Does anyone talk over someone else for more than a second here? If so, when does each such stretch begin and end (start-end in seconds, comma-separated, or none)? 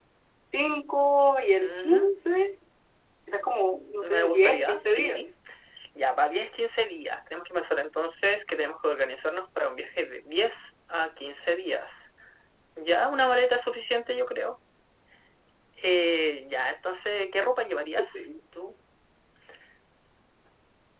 4.0-5.3